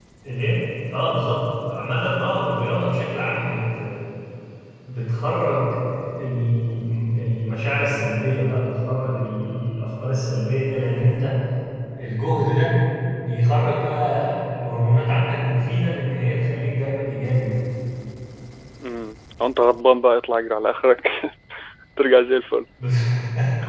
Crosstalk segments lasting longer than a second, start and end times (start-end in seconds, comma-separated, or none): none